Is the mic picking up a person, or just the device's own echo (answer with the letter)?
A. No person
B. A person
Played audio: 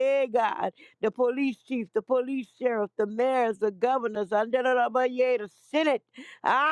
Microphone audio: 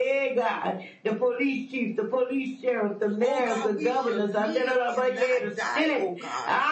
B